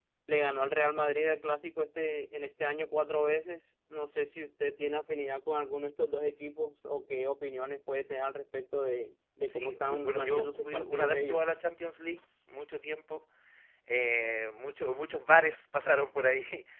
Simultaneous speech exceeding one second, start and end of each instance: 9.5-11.4

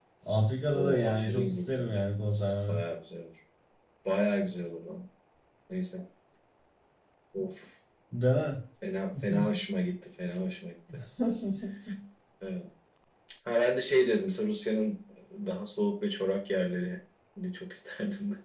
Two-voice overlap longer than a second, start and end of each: 0.7-2.0

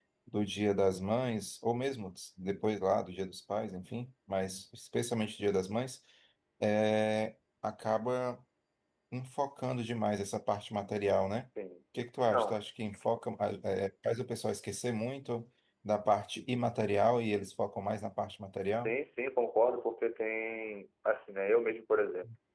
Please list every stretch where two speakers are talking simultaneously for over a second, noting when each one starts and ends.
none

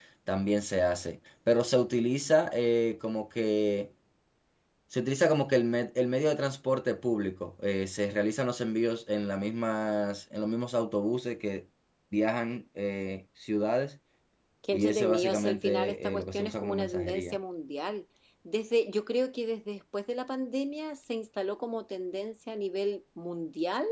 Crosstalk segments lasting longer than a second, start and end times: 14.7-17.4

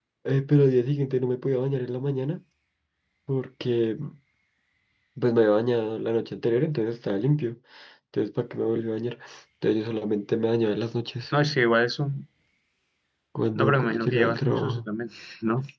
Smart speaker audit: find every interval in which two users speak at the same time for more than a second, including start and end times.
13.5-14.9

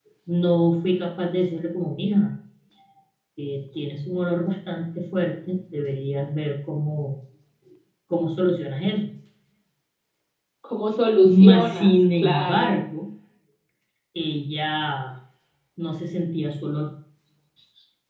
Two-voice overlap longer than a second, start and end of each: 11.4-12.8

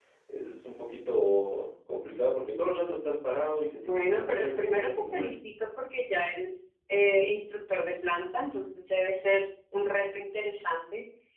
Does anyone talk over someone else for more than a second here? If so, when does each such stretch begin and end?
3.7-5.3

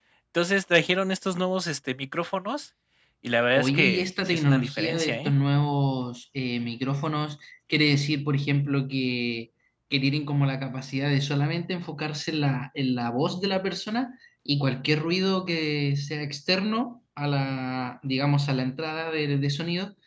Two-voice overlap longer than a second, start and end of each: 3.6-5.3

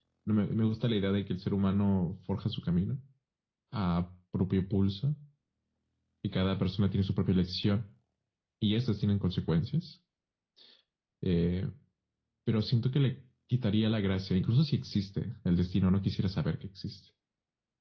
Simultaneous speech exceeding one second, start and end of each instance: none

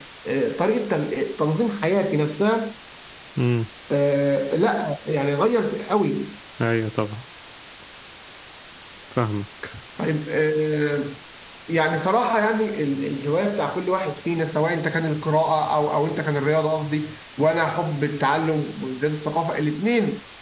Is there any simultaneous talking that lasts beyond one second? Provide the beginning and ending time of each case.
none

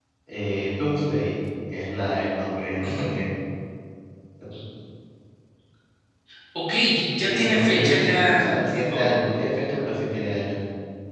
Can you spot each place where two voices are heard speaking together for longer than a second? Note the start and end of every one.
7.2-9.1

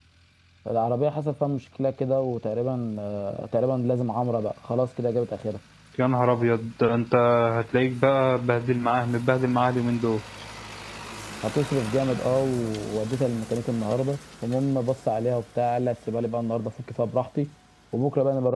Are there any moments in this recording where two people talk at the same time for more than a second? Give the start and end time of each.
none

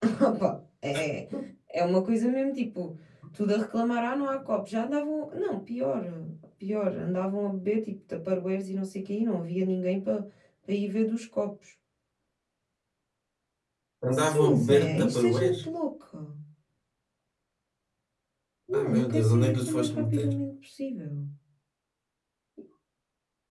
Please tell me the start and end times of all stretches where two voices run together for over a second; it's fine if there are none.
14.1-15.6, 18.8-20.3

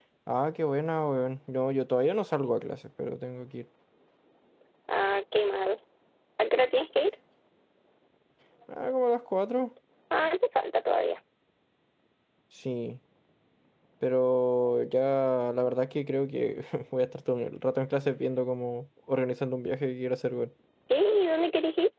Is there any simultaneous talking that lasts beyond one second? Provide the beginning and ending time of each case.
none

